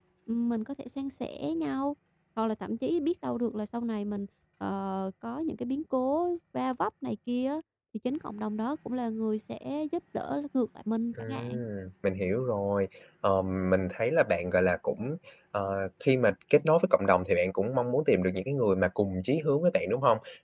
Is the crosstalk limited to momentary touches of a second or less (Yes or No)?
Yes